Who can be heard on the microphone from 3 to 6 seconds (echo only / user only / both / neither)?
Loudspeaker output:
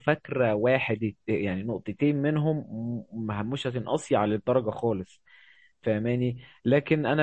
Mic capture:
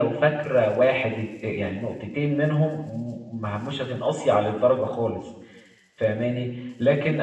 echo only